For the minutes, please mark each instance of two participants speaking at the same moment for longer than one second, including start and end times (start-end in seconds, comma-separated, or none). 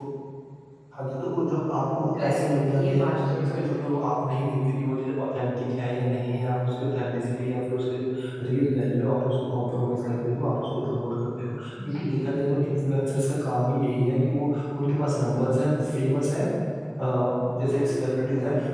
2.1-4.0